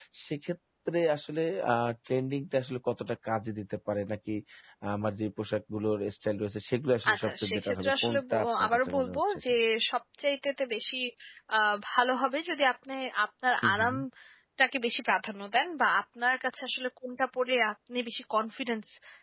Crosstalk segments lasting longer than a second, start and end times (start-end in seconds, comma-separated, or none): 7.1-9.4